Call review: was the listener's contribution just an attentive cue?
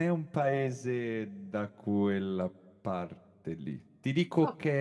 Yes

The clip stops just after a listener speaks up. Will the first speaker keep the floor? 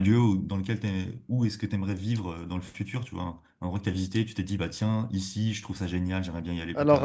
No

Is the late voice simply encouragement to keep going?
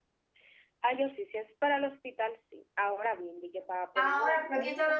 No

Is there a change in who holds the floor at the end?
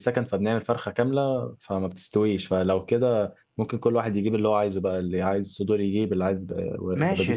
Yes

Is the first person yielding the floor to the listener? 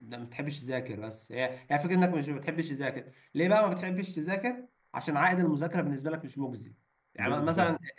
No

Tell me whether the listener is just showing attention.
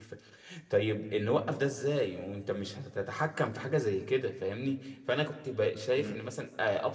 Yes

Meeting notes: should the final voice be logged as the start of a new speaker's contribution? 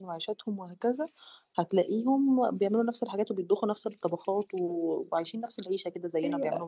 Yes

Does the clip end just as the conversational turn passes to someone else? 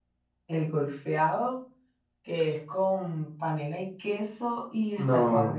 Yes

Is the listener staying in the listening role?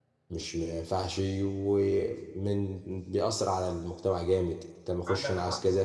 Yes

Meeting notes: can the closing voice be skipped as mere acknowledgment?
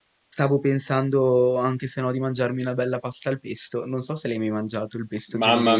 No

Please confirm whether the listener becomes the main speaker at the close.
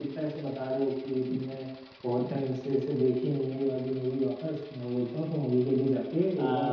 Yes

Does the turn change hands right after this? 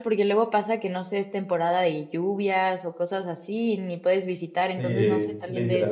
Yes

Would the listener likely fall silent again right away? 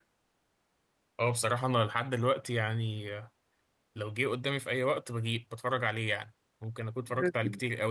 Yes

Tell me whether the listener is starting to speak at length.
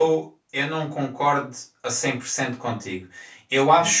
No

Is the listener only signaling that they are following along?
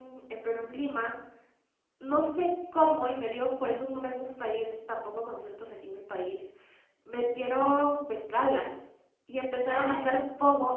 Yes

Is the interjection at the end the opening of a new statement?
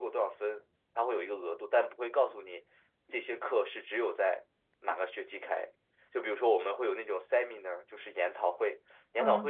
No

